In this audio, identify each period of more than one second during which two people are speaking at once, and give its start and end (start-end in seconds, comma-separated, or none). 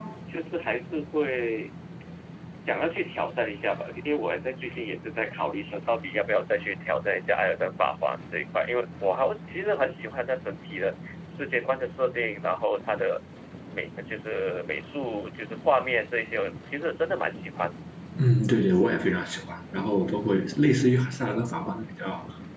none